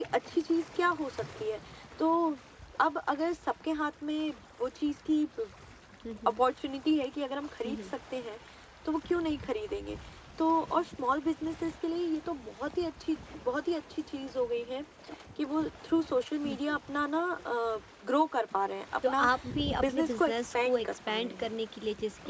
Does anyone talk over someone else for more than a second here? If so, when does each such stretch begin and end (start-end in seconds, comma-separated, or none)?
19.8-21.5